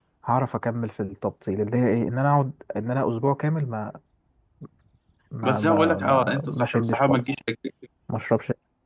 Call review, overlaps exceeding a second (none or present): present